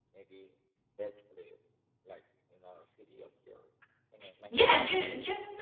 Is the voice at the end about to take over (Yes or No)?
Yes